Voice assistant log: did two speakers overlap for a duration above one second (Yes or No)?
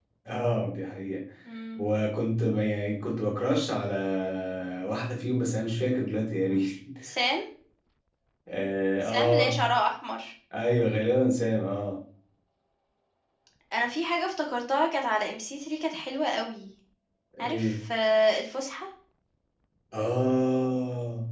No